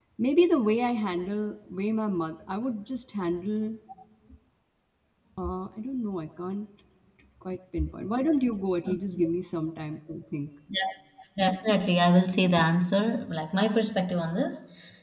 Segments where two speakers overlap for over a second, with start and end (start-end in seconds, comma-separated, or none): none